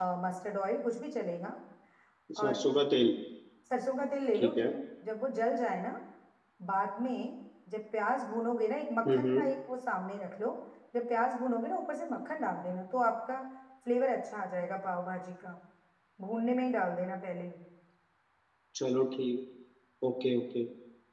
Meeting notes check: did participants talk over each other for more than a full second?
No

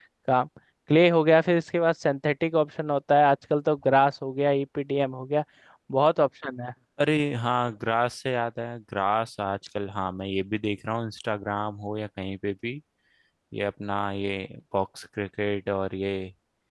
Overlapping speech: No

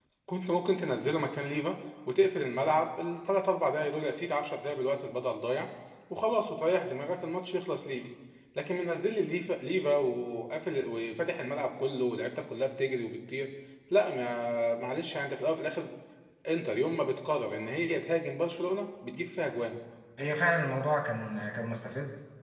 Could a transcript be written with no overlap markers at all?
Yes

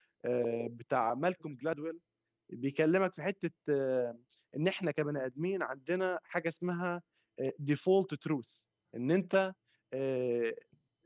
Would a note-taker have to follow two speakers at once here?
No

